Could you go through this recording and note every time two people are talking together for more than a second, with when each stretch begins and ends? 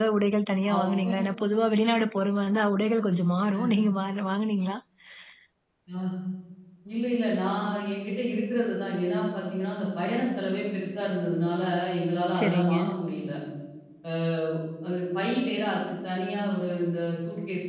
none

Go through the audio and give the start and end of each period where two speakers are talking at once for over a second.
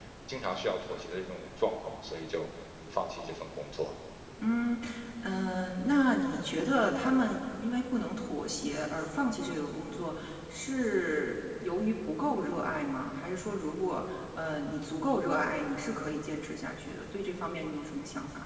none

